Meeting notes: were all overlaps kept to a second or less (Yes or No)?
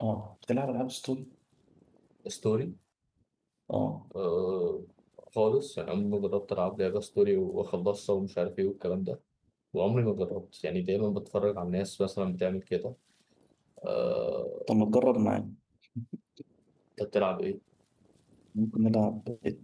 Yes